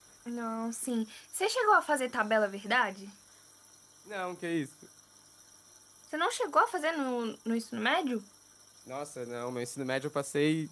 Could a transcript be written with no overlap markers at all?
Yes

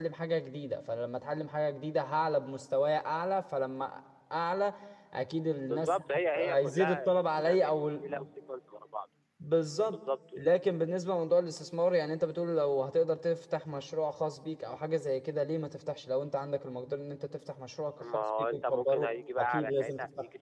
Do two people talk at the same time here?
Yes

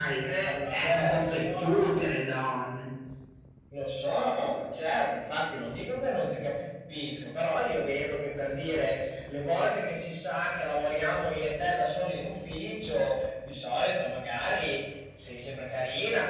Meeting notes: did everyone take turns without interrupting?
No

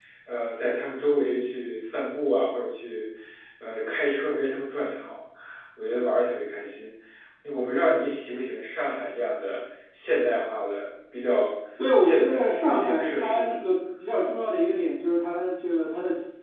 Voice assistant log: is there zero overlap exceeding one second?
No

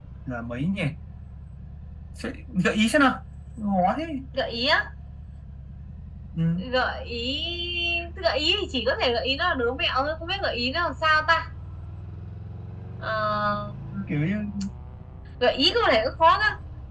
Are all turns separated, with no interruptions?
Yes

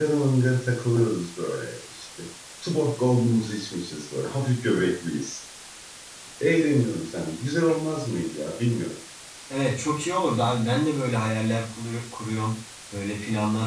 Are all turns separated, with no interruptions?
Yes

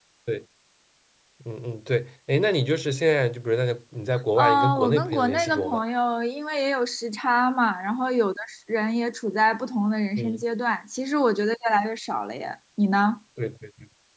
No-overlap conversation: No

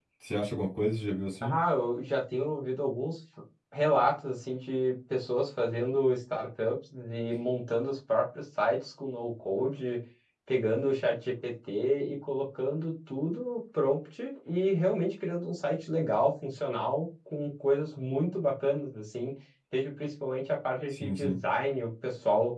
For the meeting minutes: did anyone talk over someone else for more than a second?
No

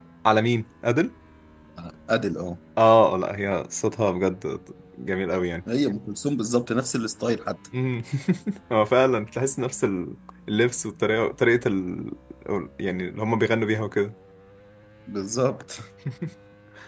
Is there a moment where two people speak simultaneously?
No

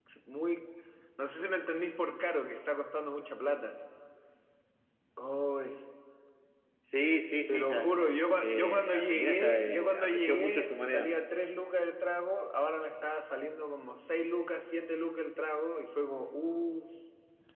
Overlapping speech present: Yes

